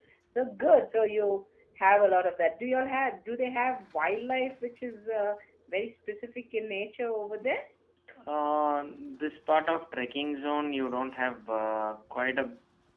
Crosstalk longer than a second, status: none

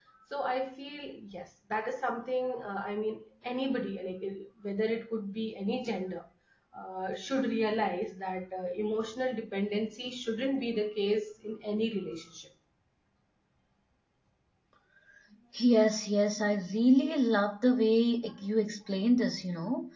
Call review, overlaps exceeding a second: none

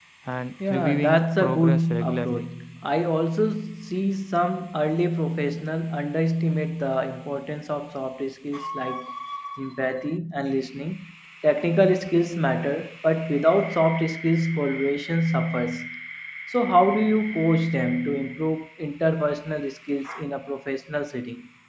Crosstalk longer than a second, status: present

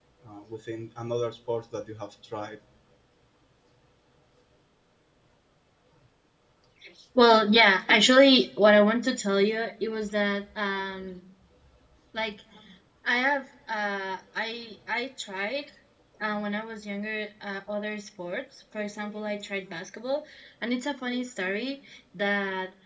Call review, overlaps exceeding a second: none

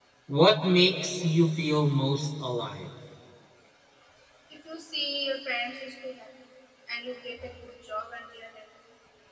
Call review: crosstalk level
none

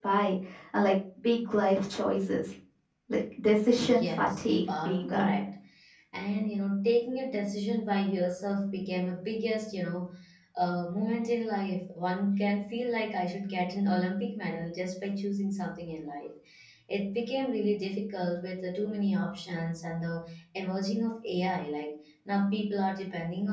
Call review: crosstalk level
present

